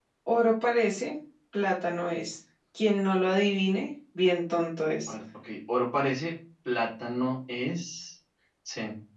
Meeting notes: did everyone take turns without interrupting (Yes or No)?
Yes